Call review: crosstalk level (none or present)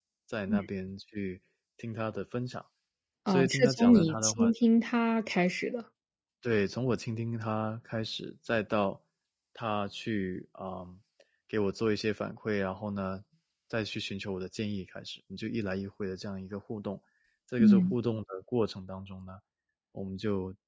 present